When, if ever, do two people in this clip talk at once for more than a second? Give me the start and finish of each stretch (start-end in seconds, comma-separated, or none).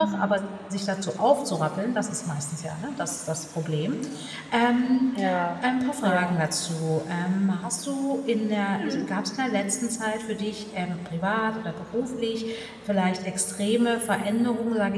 none